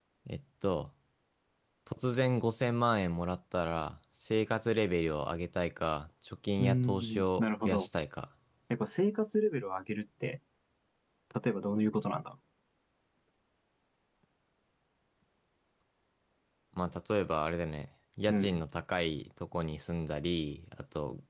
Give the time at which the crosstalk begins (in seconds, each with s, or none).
6.6 s